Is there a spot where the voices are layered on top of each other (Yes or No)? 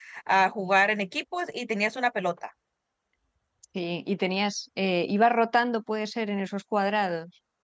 No